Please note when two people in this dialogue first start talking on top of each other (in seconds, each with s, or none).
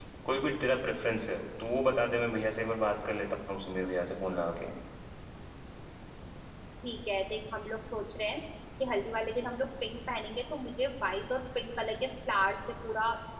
none